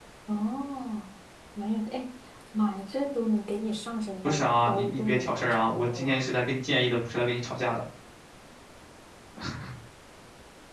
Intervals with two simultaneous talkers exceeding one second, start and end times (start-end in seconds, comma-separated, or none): 4.2-6.3